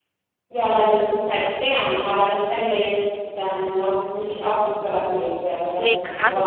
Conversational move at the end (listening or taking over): taking over